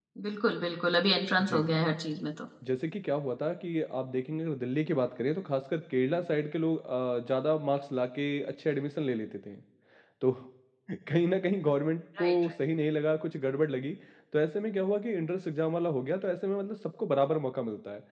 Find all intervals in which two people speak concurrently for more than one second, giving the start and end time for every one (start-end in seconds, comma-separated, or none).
none